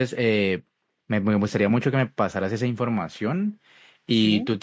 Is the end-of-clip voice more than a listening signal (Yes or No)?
No